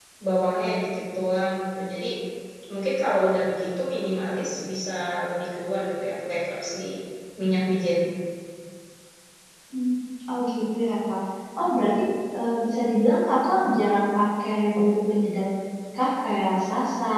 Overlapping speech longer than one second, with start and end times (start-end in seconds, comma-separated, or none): none